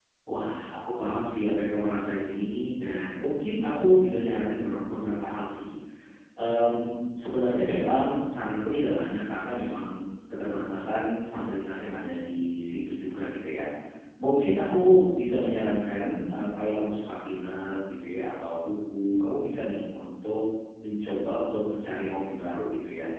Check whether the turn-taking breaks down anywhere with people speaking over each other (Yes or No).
No